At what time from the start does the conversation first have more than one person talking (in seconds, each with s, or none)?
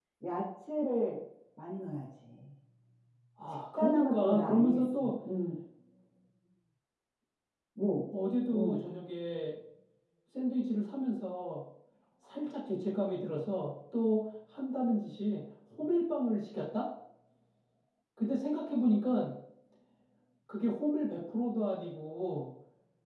3.5 s